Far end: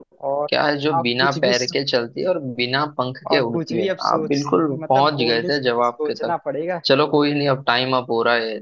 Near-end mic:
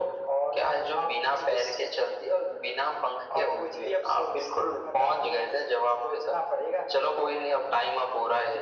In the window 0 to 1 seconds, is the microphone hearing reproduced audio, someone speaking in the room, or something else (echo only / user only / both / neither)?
echo only